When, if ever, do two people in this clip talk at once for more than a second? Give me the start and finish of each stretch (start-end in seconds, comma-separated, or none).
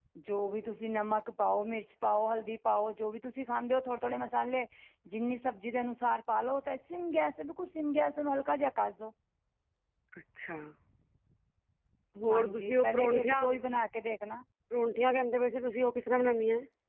12.3-13.6